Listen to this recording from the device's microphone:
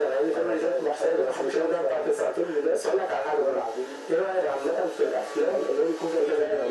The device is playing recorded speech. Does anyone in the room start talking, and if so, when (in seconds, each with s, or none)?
none